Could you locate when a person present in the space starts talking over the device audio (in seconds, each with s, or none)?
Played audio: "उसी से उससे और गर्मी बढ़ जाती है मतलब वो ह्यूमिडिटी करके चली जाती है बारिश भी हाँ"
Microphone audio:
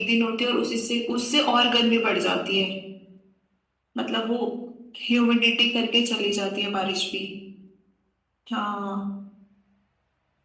none